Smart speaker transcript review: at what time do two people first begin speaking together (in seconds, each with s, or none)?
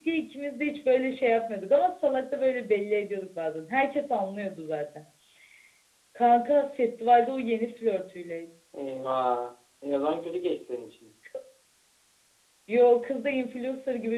none